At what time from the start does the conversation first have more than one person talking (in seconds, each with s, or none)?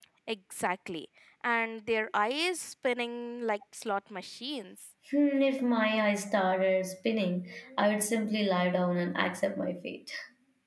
none